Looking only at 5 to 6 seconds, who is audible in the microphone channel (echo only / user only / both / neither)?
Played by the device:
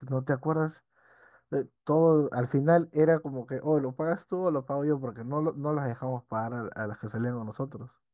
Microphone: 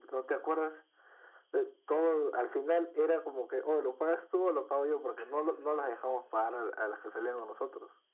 echo only